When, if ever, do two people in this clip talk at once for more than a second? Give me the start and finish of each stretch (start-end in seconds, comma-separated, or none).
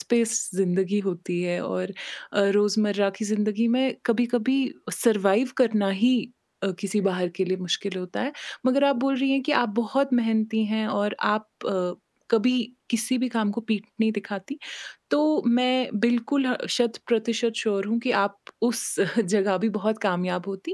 none